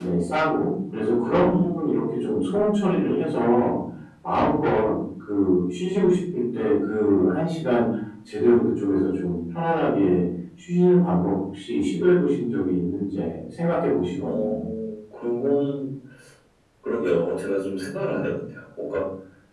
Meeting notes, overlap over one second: none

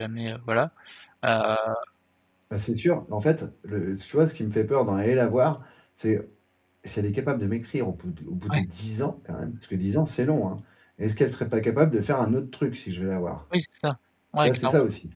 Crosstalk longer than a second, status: none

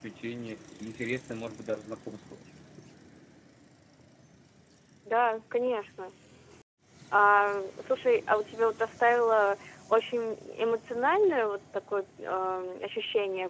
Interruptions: none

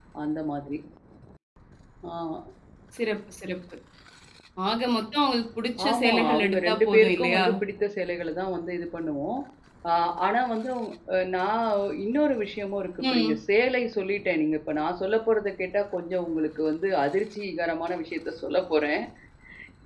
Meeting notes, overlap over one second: present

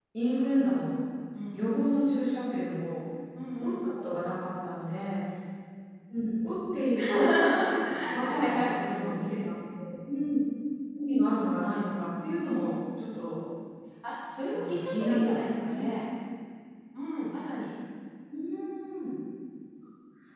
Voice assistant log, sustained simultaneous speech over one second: present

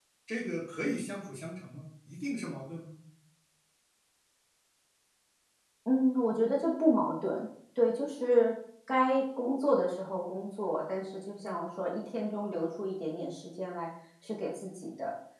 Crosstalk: none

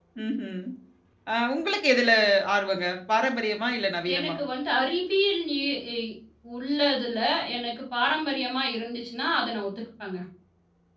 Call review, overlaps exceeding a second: none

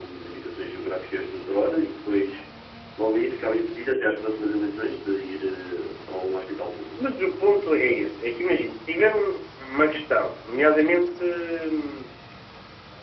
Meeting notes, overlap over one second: none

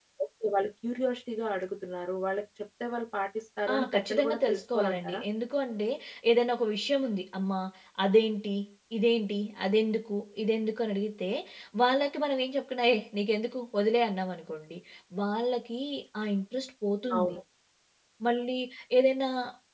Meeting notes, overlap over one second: present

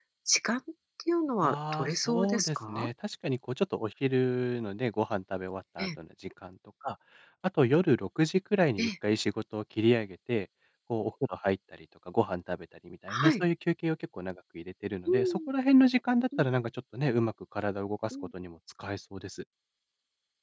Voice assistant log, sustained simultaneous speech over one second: present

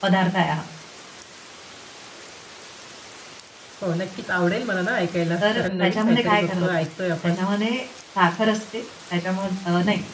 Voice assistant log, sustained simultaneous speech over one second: present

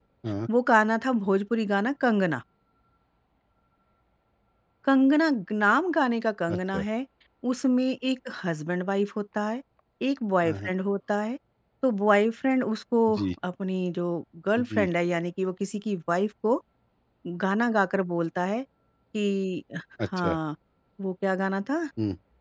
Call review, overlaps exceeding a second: none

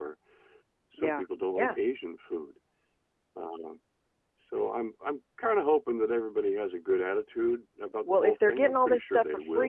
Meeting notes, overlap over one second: present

